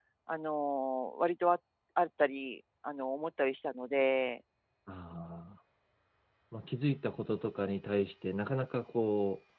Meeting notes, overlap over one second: none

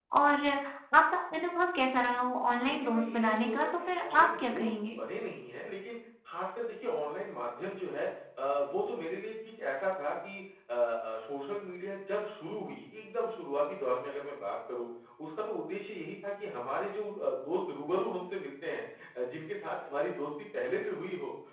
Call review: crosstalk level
present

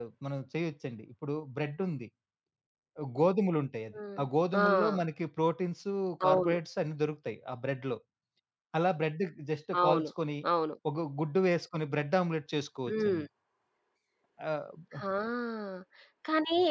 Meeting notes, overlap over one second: none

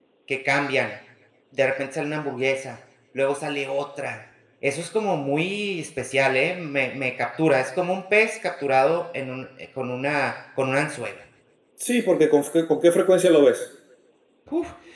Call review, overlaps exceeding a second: none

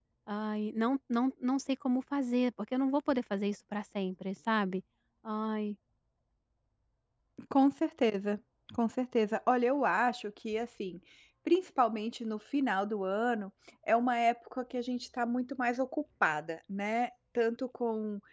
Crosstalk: none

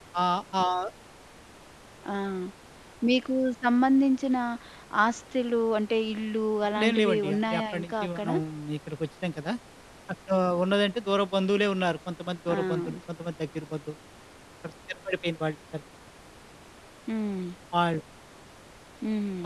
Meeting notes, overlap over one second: present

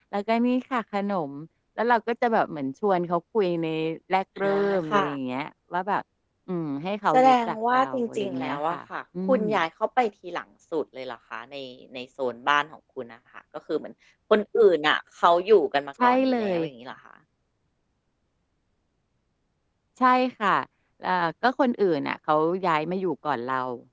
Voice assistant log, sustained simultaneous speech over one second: present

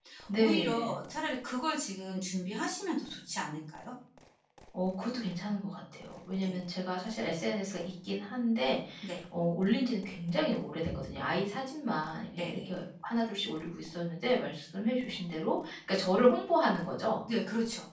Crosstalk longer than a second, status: none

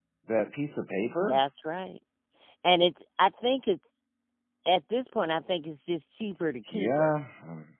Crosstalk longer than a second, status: none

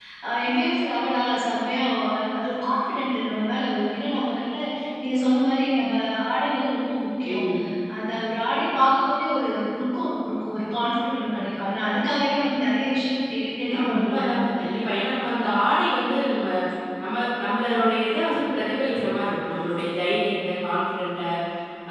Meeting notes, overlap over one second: none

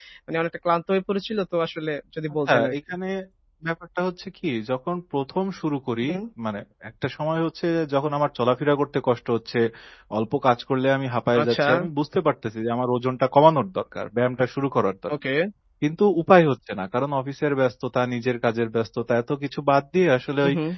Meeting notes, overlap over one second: none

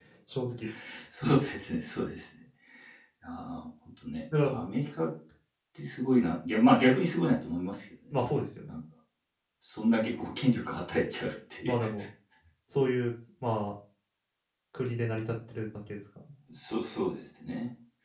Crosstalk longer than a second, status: none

